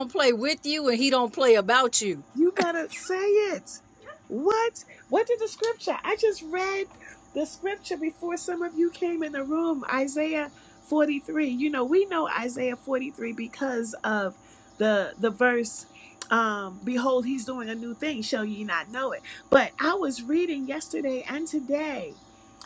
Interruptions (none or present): none